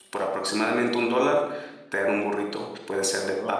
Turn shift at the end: No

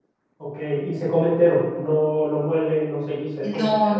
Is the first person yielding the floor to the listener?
Yes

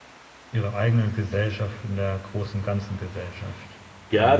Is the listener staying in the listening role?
No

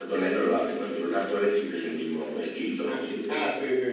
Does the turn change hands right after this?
Yes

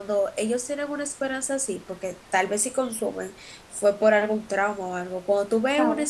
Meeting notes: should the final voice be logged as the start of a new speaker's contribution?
No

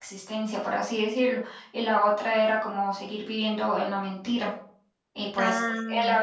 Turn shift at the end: No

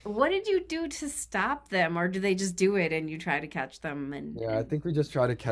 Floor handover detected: Yes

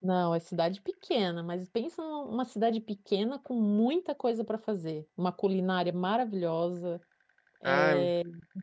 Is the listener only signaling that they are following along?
Yes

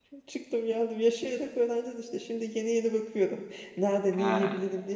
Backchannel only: Yes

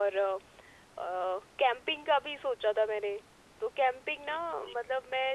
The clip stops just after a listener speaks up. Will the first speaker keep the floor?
Yes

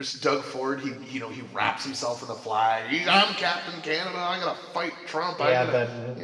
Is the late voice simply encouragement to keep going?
No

